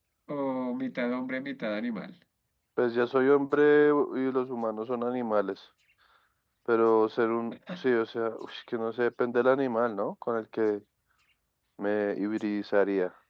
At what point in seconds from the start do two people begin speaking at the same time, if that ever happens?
none

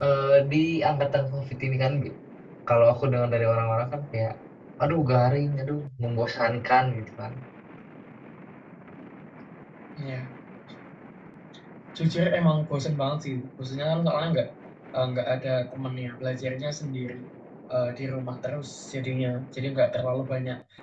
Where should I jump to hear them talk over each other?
none

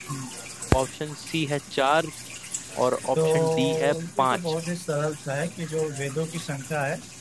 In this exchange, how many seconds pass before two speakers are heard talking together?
3 s

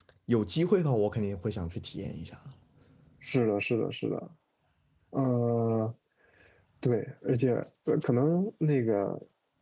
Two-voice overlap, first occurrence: none

